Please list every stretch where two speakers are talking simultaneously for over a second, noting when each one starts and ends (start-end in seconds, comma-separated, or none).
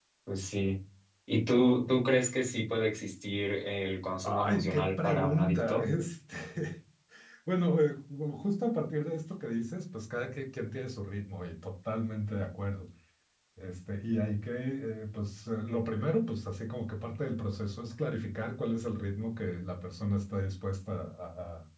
4.2-5.8